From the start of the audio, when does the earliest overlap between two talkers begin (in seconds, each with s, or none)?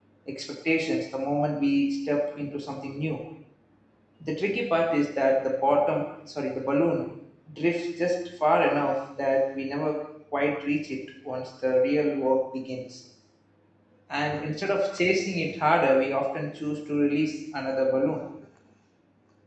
none